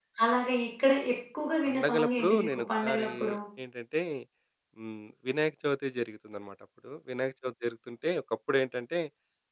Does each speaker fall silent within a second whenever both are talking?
No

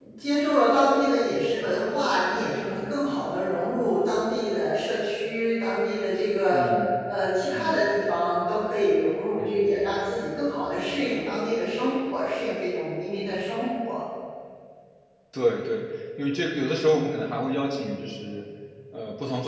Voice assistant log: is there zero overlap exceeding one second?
Yes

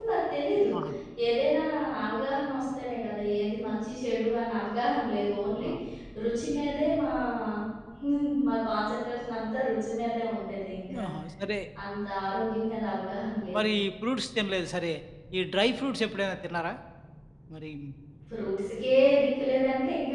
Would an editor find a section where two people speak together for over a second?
No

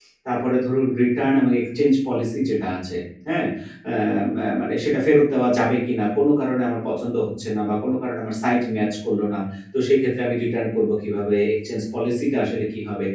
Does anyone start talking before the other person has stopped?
No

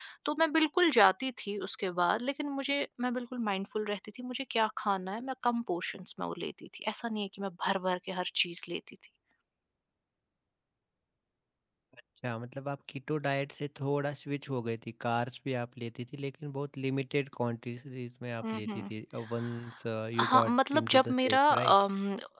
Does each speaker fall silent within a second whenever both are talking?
No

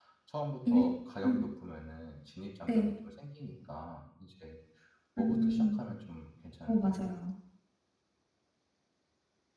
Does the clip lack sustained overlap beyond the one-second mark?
Yes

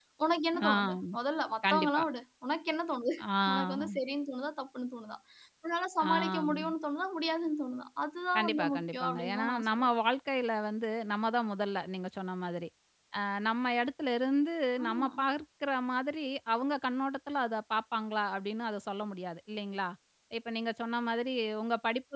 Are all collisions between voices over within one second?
No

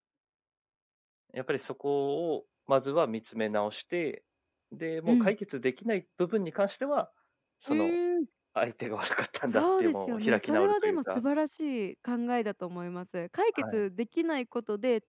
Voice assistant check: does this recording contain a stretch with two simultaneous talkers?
Yes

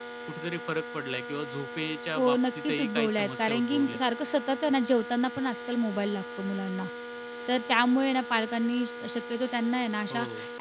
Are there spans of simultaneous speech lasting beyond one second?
Yes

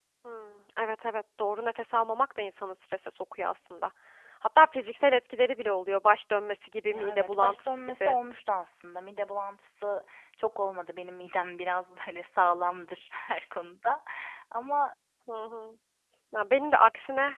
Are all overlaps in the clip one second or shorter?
No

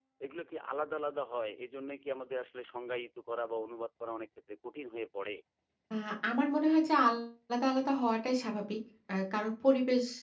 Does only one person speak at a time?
Yes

